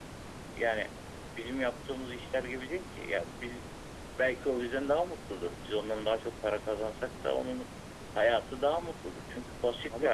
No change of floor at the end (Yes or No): No